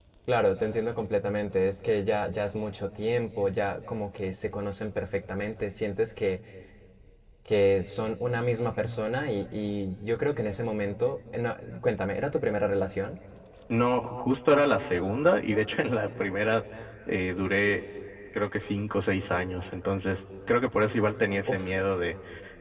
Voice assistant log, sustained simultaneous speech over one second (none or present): none